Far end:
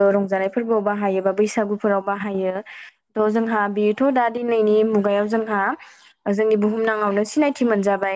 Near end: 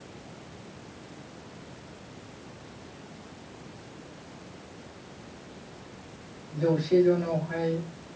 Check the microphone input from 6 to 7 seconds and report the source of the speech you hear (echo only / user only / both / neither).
user only